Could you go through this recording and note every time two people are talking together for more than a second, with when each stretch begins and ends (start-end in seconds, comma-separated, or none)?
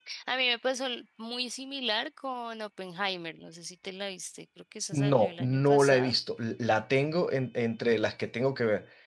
4.9-6.1